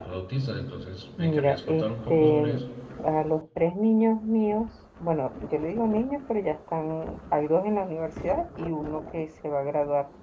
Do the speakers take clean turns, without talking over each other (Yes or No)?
No